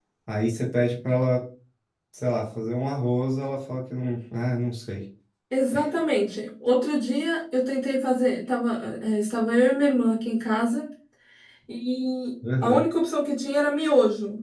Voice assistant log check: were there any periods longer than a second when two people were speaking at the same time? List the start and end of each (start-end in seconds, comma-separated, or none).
none